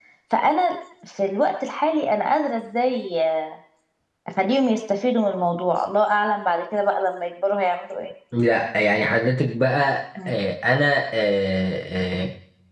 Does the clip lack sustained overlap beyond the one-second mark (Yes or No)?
Yes